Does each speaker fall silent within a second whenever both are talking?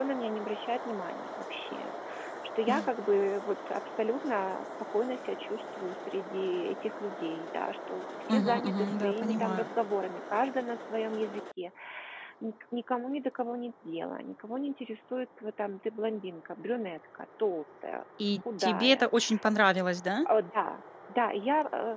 No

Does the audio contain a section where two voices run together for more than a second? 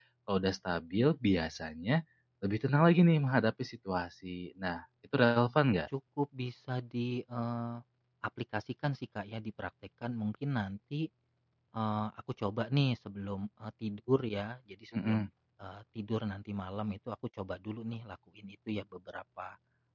No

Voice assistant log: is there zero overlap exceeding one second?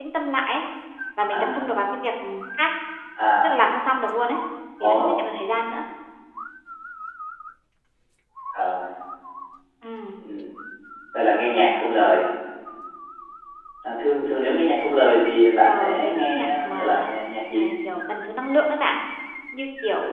No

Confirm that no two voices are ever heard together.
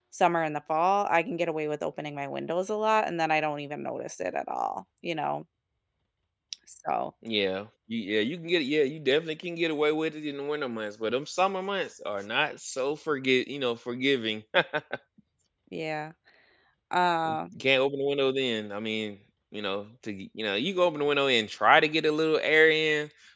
Yes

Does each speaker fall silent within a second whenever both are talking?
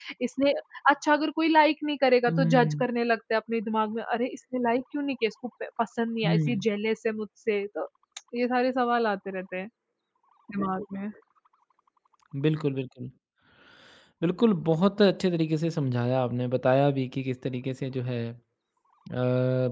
Yes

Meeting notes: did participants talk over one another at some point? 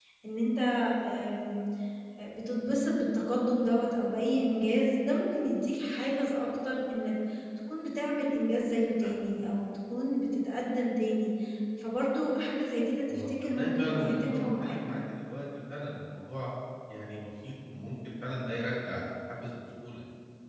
Yes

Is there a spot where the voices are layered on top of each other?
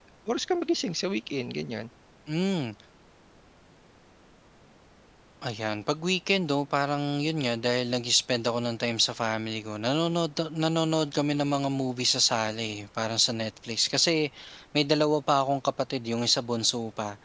No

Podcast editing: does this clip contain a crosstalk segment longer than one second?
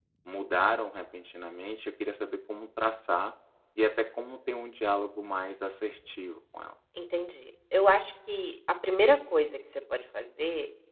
No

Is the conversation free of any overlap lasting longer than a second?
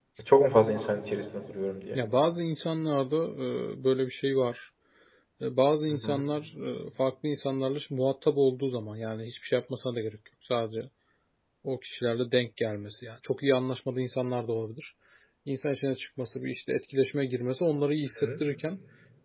Yes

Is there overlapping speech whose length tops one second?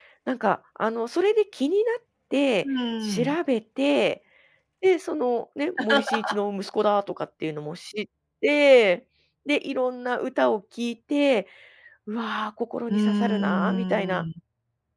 Yes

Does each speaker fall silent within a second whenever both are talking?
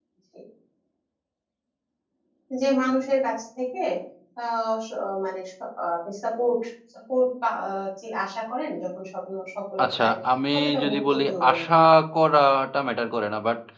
No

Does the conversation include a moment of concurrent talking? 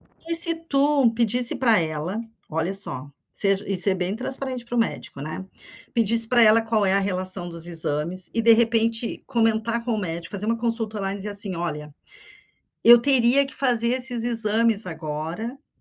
No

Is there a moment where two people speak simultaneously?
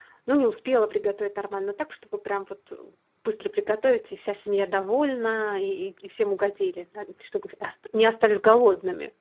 No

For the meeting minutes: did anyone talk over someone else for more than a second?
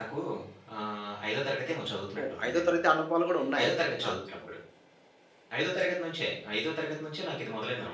No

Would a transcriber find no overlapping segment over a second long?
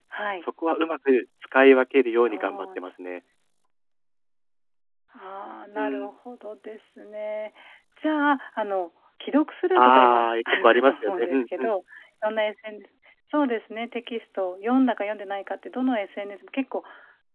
No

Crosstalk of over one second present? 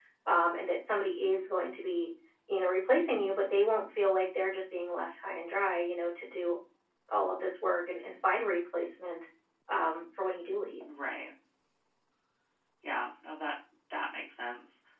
No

